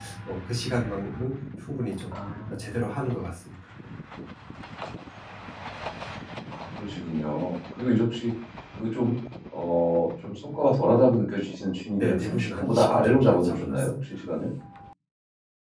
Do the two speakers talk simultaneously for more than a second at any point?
Yes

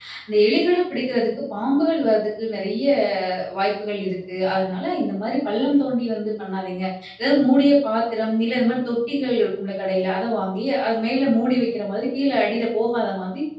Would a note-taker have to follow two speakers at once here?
No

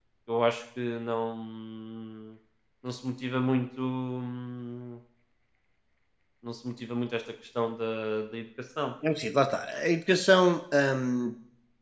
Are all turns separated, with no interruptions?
Yes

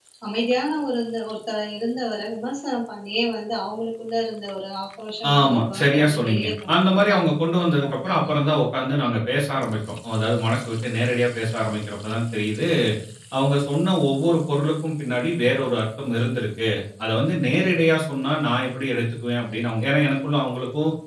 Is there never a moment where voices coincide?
No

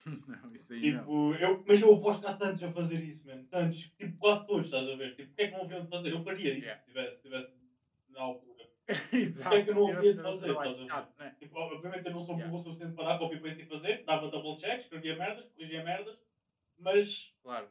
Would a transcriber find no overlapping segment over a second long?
No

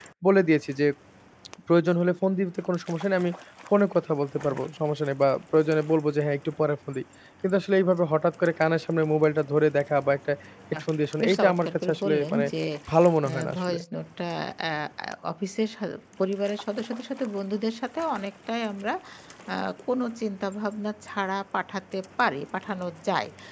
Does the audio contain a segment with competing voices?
Yes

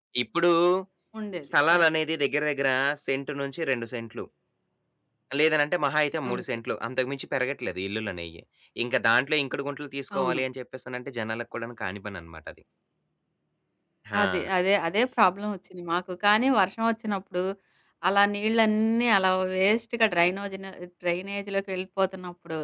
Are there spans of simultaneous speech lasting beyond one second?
No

